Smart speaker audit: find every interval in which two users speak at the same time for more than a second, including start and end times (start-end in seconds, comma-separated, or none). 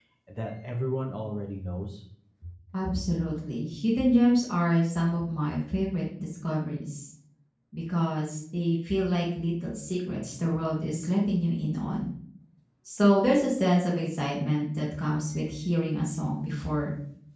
none